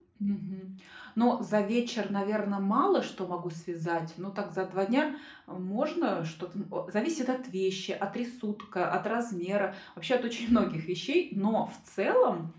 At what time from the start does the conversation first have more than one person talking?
none

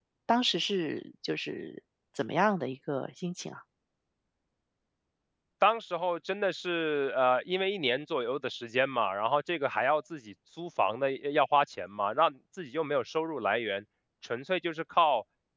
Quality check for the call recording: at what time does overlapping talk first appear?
none

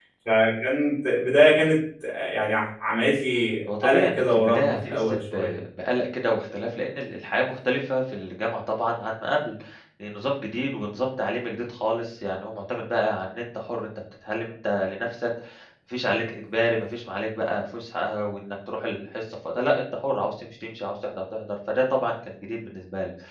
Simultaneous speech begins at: 3.7 s

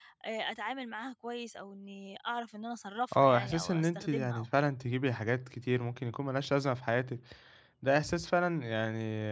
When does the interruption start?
3.1 s

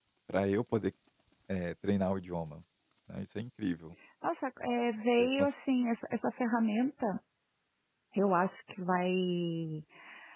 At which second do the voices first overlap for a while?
none

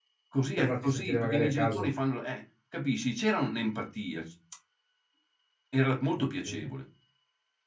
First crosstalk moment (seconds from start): 0.6 s

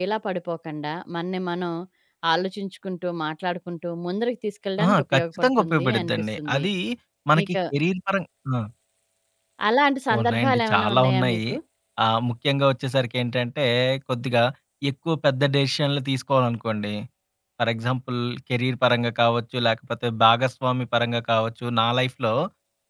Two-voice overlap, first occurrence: 4.8 s

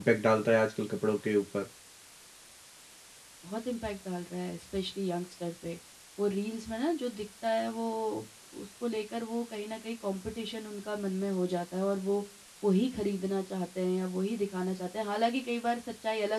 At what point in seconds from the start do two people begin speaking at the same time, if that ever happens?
none

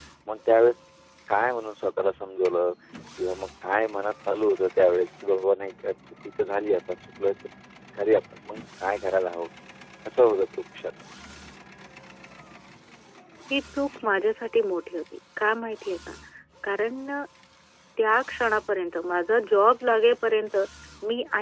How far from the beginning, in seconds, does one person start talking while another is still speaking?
none

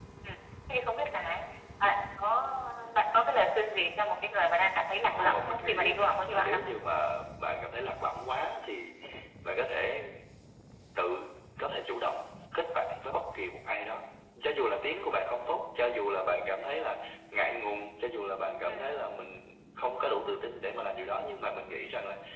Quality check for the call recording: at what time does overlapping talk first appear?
5.1 s

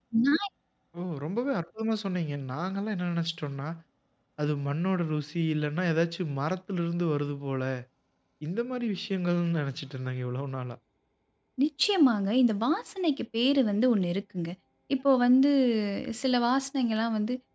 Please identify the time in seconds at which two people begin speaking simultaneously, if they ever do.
none

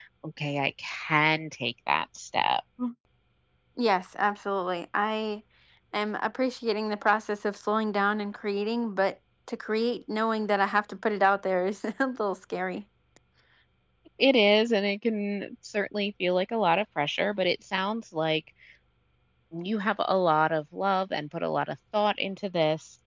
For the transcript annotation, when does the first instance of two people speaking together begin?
none

